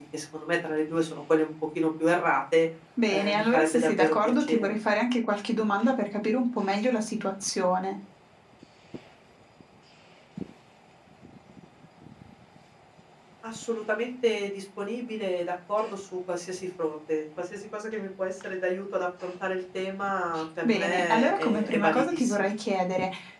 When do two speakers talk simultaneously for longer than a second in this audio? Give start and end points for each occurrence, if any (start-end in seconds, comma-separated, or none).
3.1-4.7, 20.6-22.5